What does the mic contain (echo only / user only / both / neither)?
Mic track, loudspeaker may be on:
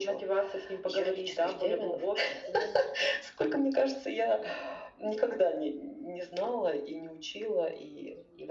echo only